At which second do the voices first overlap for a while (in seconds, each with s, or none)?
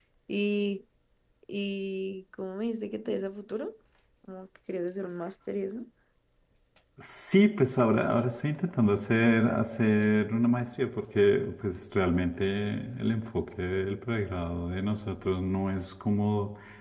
none